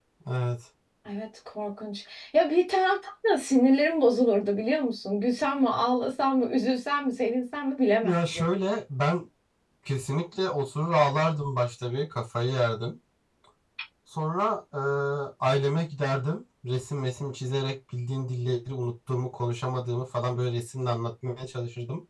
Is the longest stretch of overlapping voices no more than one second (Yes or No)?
Yes